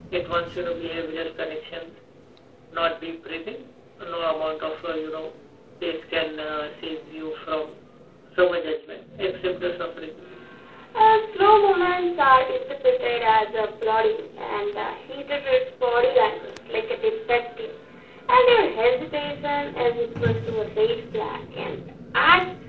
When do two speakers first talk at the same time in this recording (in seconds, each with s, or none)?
none